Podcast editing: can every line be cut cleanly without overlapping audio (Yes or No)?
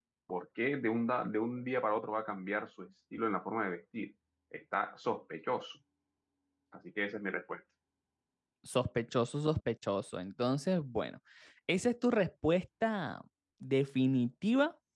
Yes